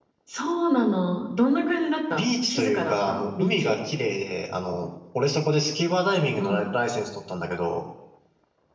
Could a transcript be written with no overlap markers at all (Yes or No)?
No